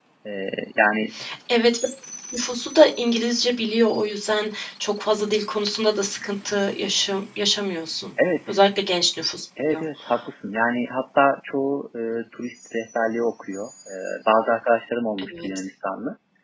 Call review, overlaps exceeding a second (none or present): none